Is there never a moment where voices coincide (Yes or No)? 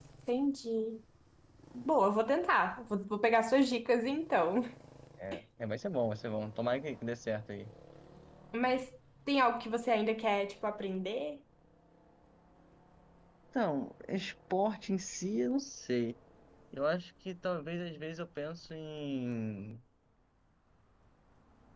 Yes